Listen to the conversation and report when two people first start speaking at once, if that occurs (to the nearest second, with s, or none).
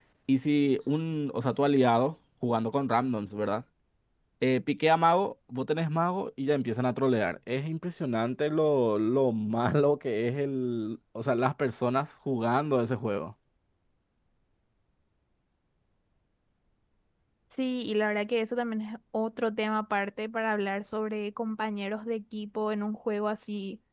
none